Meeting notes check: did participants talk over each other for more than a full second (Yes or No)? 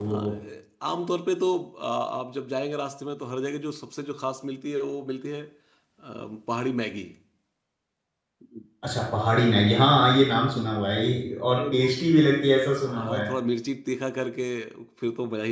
No